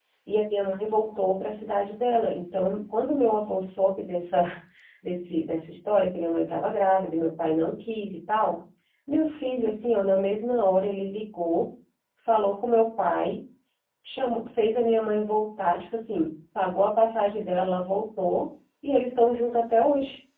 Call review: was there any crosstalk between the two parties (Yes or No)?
No